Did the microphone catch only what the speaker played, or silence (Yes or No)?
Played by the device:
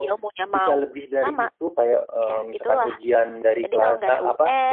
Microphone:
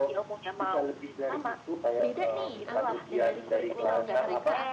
No